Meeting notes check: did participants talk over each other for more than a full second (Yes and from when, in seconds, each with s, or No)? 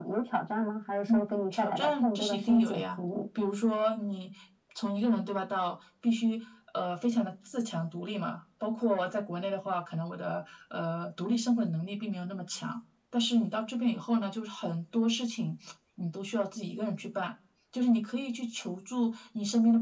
Yes, from 1.1 s